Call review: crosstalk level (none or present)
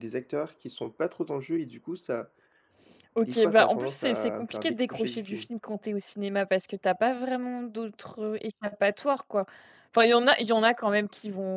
present